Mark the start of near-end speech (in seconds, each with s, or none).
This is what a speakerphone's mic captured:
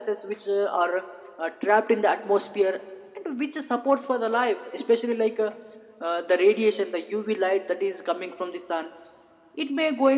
none